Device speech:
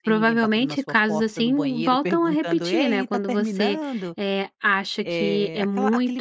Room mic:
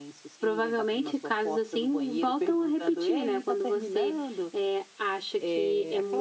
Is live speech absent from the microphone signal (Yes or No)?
Yes